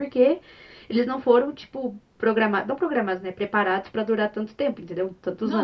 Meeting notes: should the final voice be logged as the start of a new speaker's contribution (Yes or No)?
Yes